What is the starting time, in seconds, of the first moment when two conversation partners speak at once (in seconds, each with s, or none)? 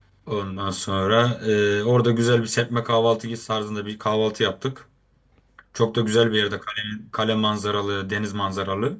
none